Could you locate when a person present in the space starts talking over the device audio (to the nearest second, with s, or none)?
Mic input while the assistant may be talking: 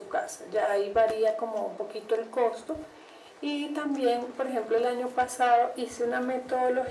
none